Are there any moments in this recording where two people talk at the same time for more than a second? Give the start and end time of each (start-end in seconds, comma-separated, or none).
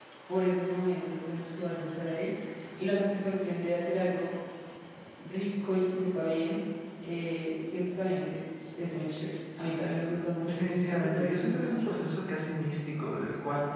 10.5-11.8